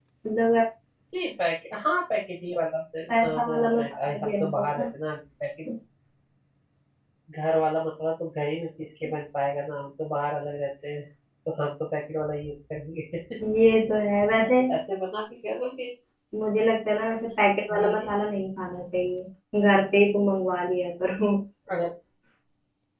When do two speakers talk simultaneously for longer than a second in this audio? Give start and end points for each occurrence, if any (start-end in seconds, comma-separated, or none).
3.2-4.8